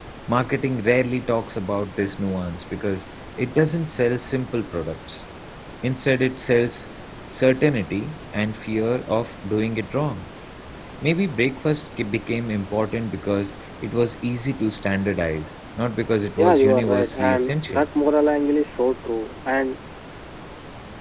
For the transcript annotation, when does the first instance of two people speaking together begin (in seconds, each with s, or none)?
16.4 s